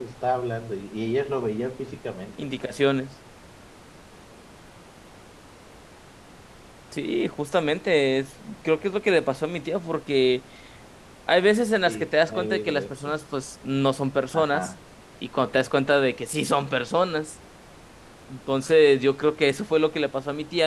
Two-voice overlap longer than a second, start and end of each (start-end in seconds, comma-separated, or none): 11.8-13.1